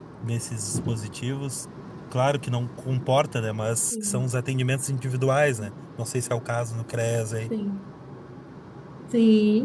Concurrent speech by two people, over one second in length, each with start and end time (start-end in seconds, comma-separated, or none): none